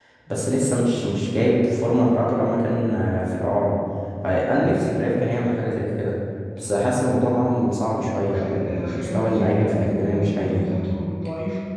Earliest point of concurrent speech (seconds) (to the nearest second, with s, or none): 8 s